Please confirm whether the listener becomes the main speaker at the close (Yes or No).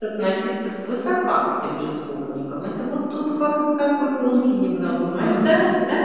Yes